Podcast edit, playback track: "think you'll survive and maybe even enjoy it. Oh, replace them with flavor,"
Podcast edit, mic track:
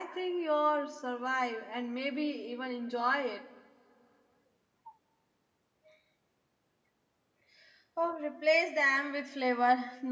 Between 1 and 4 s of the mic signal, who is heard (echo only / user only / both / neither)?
echo only